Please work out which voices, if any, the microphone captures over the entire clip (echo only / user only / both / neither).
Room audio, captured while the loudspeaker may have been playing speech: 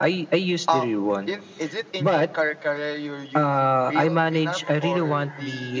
echo only